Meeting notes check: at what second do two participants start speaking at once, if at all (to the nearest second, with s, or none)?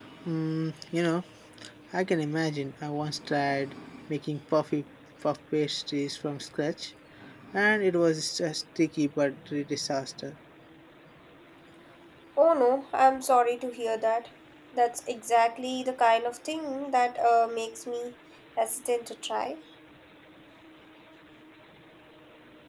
none